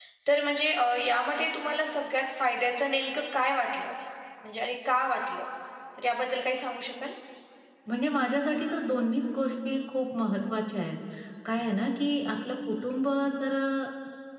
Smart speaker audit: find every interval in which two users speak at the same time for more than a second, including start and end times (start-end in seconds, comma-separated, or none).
none